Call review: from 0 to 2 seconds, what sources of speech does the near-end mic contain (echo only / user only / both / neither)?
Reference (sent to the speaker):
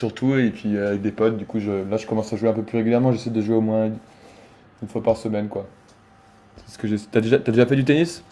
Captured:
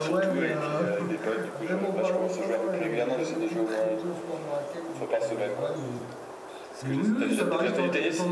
both